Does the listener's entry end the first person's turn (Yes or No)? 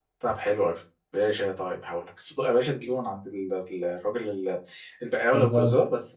No